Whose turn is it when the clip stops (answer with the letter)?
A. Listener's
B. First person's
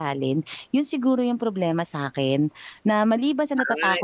B